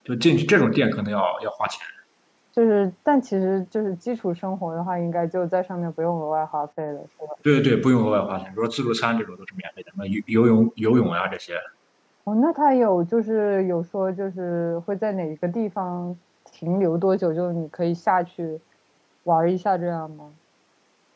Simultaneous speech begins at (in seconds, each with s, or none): none